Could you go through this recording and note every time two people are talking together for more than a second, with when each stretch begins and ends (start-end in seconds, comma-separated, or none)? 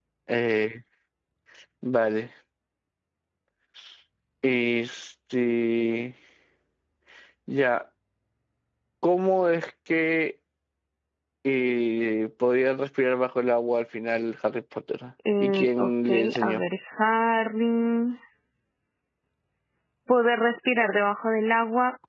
15.4-16.6